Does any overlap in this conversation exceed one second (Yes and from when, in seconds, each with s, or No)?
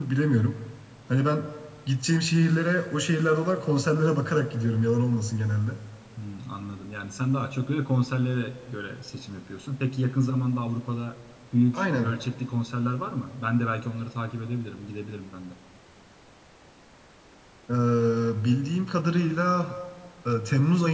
No